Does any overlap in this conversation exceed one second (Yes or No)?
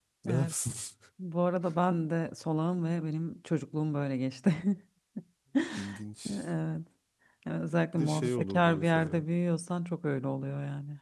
Yes